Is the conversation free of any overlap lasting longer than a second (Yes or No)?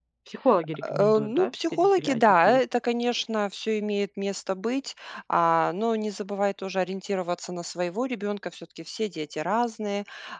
No